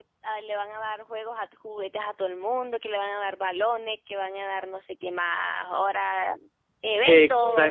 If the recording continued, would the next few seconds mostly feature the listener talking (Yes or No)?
Yes